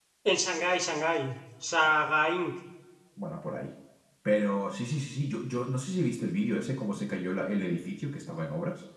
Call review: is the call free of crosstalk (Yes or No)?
Yes